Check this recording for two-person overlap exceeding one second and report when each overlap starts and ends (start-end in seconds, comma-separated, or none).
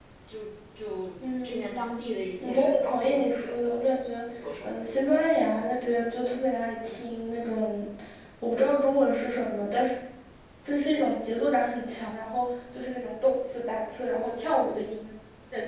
2.4-3.8